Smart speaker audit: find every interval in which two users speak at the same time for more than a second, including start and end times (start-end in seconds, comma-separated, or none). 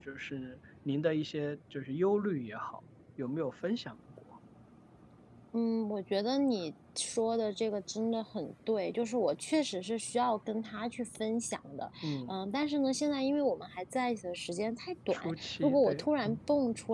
15.1-16.4